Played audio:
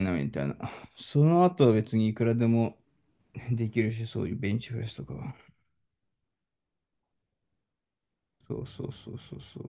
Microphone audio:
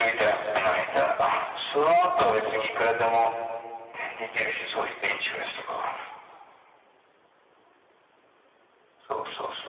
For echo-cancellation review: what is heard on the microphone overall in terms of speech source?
echo only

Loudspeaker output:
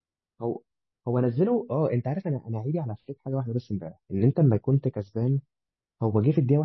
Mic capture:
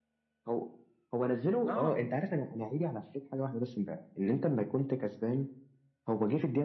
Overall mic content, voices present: both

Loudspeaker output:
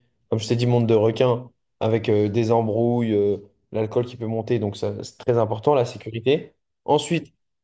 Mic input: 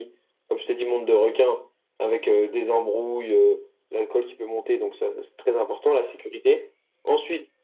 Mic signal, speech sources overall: echo only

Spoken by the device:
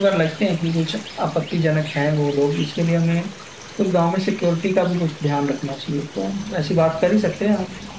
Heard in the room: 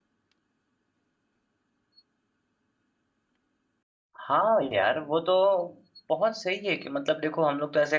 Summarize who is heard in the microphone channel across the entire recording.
user only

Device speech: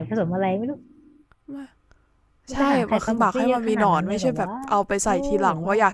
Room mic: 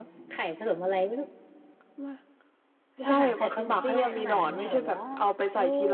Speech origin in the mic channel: both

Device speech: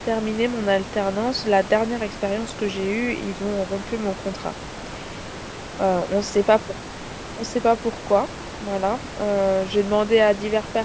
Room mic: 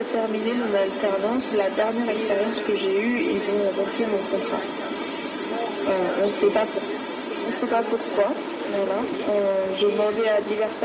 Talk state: both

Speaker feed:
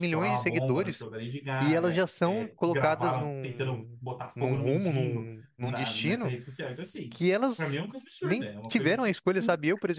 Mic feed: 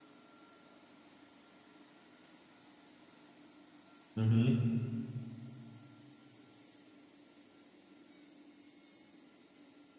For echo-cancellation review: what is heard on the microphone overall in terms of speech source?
user only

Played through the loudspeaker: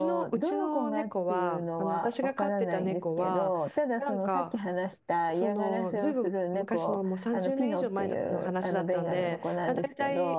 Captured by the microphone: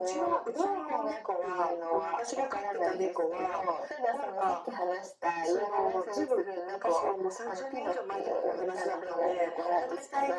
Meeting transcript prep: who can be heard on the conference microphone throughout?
echo only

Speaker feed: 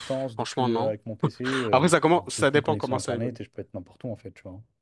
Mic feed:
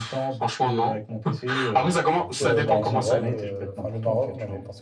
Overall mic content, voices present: both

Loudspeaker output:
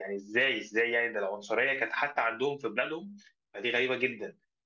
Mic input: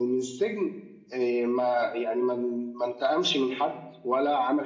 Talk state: user only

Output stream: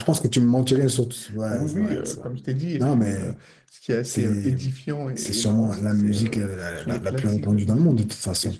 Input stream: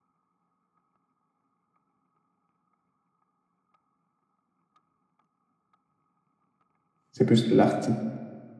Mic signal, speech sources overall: user only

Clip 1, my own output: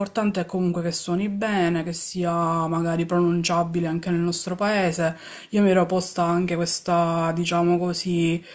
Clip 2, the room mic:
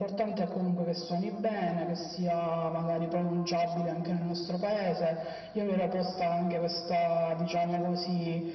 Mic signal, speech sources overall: echo only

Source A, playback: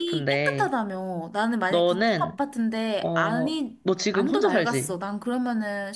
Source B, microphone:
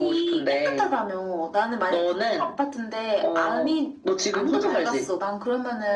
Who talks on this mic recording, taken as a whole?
echo only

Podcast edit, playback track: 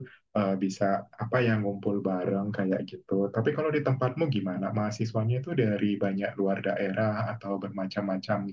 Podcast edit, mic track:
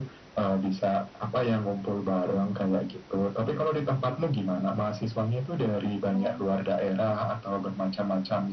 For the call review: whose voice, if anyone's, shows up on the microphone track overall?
both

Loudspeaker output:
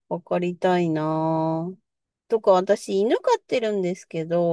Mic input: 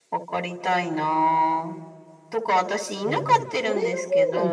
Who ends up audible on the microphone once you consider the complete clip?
both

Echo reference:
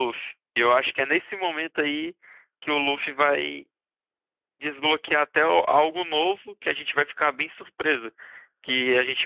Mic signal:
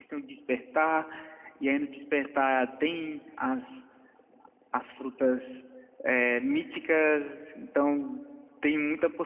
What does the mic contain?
user only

